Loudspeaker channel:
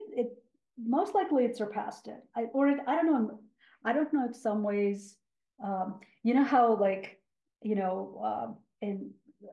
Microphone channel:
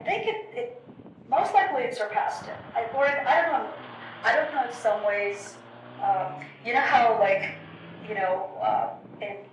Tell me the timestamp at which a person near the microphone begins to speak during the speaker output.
none

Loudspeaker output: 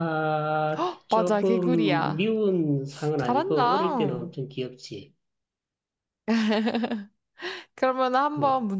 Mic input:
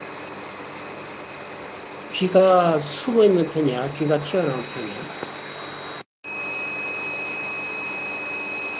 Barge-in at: 2.1 s

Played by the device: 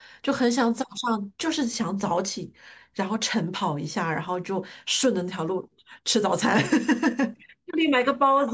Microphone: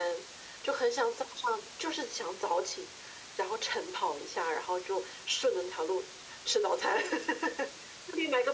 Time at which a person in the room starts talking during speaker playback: none

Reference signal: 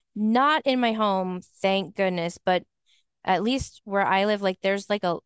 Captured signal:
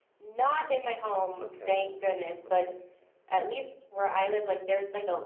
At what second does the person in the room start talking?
1.4 s

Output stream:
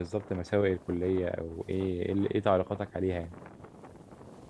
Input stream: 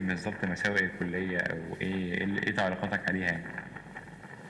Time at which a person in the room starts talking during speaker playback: none

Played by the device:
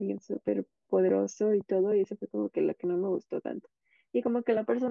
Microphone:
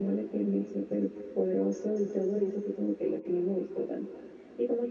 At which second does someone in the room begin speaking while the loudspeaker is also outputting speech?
none

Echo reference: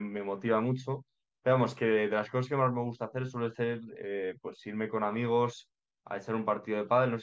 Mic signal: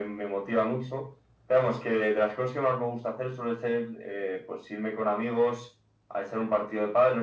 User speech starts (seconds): none

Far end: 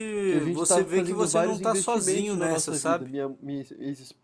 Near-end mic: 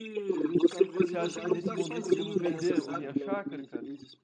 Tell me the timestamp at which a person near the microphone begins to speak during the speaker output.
1.0 s

